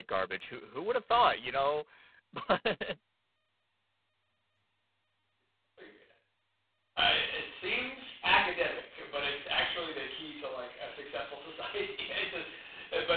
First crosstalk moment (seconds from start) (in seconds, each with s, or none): none